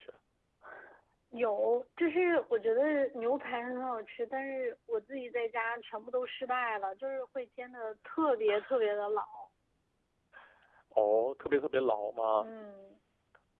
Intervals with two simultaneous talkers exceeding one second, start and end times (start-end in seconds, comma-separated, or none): none